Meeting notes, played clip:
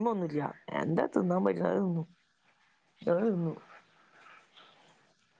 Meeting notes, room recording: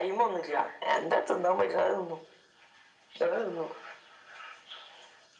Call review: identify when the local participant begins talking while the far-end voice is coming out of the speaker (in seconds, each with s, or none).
none